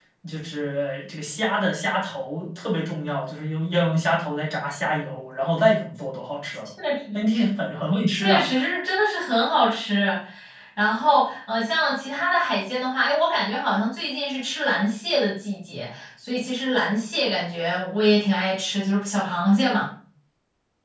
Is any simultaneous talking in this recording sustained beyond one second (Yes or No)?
No